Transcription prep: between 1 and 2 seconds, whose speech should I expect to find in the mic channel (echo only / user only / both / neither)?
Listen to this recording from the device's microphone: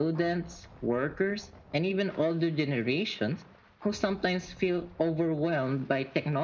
echo only